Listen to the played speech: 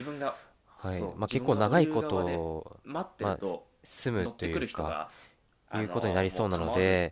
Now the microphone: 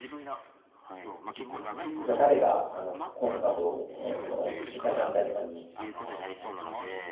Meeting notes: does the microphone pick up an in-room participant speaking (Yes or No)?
Yes